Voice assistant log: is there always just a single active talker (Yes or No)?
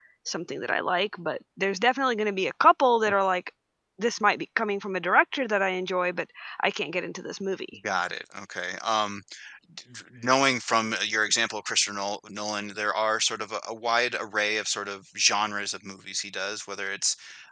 Yes